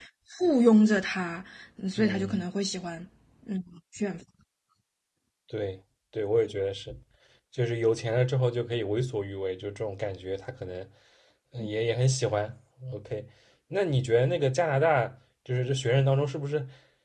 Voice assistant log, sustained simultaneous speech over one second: none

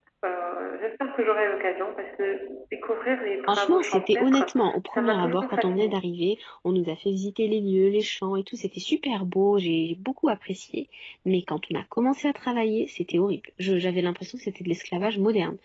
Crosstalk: present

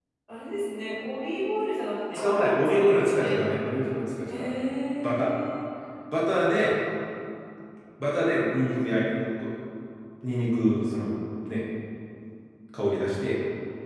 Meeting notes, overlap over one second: present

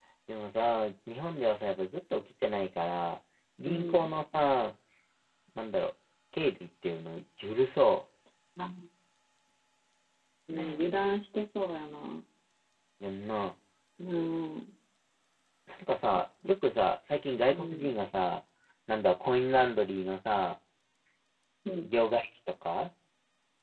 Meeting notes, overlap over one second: none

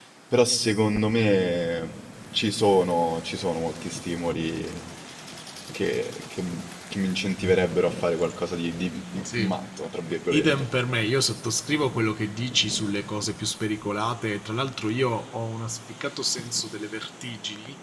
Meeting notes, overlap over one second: none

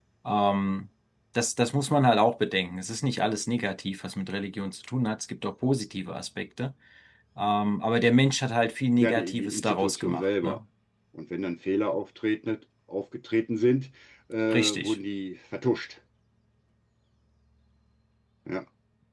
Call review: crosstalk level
present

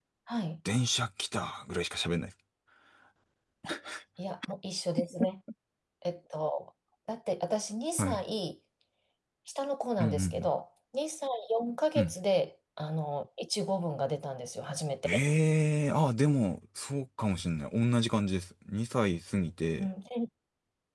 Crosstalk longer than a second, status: none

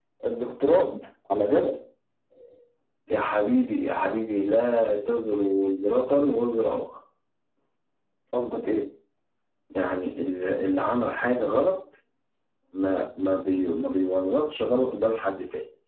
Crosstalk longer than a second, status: none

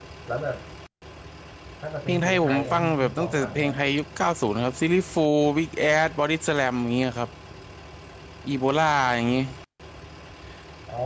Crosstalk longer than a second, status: present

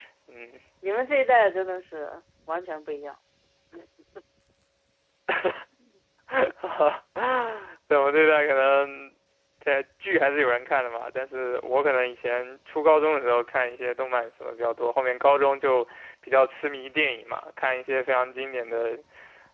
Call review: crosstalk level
none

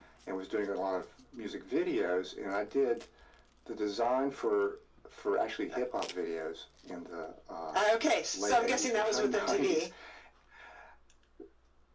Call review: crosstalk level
present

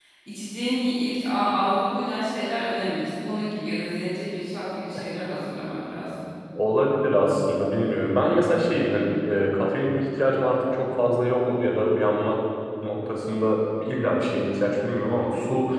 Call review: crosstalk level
none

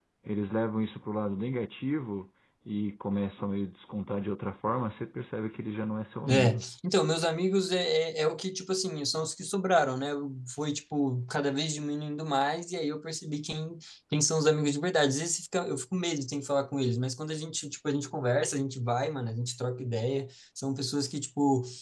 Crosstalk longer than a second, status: none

